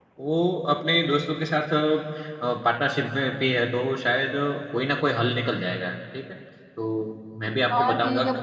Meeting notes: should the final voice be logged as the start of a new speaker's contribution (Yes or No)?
Yes